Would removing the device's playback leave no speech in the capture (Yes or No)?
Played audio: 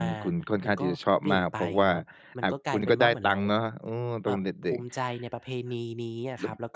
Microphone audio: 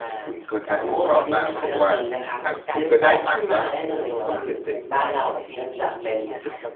No